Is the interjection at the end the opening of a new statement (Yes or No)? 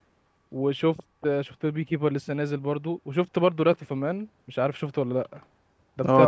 Yes